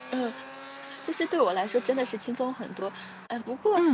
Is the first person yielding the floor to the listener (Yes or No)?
No